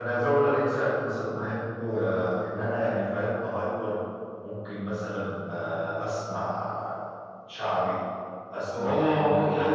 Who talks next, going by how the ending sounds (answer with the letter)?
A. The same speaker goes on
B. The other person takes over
B